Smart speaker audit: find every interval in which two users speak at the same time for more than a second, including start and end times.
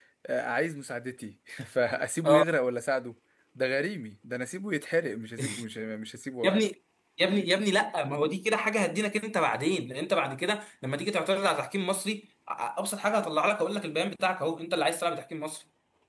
none

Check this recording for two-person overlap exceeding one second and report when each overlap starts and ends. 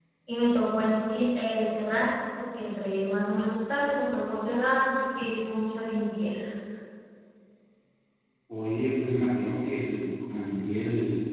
none

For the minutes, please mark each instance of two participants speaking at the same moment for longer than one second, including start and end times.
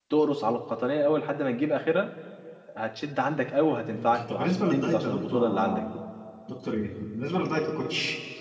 3.9-5.9

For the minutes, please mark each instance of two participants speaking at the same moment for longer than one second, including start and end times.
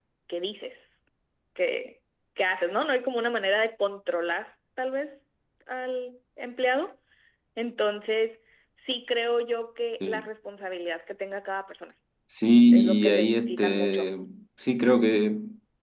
12.7-14.1

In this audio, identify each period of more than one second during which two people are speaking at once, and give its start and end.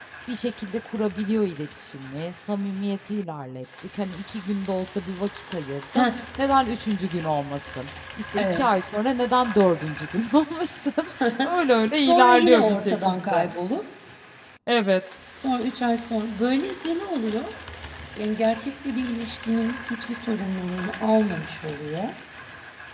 12.1-13.5

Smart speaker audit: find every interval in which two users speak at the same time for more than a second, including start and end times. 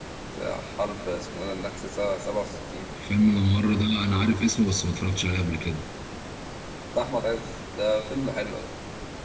none

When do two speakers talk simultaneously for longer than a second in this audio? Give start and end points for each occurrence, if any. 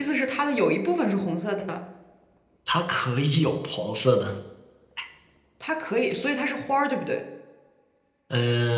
none

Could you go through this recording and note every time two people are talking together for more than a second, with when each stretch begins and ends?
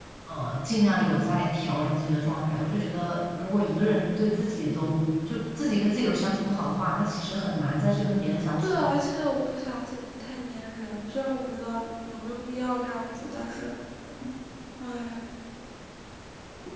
none

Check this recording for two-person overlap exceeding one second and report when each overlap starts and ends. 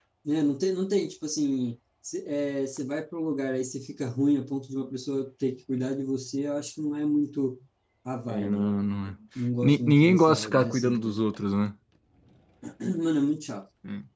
9.6-11.2

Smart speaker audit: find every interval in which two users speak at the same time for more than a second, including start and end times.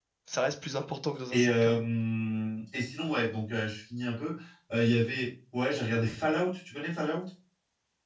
none

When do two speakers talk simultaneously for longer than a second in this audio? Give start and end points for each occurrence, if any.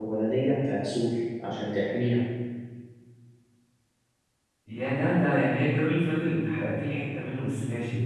none

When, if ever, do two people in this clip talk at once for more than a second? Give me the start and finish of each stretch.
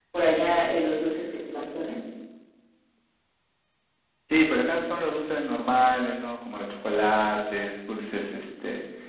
none

